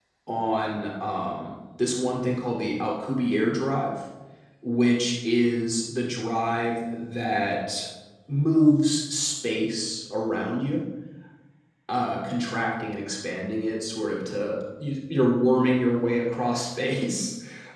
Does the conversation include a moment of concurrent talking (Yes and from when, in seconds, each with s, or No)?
No